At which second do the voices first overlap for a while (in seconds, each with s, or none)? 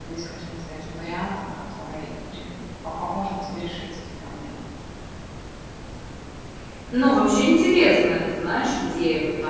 none